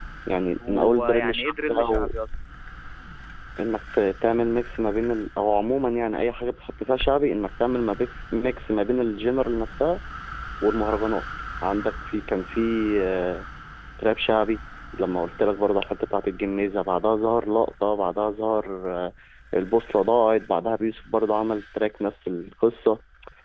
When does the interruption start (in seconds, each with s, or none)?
0.7 s